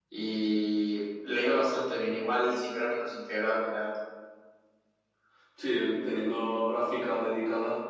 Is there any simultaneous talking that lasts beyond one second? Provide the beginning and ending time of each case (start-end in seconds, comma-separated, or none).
none